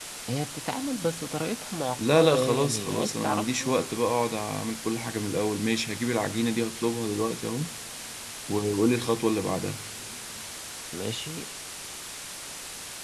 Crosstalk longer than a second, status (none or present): present